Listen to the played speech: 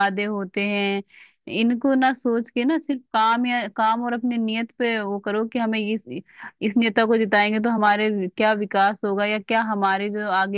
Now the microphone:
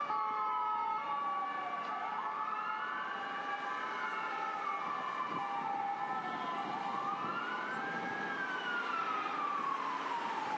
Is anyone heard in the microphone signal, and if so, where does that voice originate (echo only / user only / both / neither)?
neither